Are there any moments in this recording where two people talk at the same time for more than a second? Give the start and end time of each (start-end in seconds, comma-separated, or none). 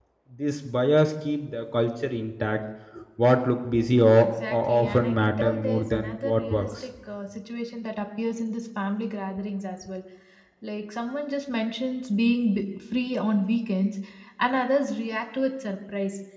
4.2-6.7